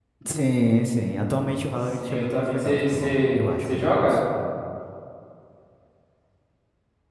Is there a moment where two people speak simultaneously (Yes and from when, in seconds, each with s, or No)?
Yes, from 2.0 s